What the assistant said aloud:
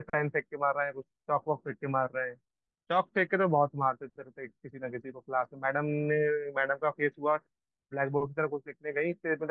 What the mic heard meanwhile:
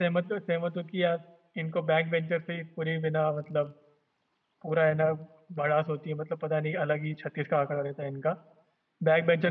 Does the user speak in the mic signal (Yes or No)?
Yes